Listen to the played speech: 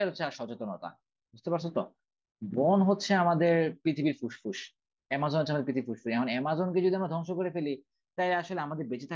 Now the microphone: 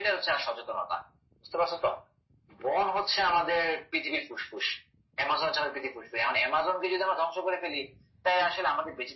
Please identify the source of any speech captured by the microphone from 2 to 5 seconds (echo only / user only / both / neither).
echo only